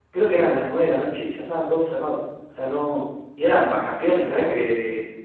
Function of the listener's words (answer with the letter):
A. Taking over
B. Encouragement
B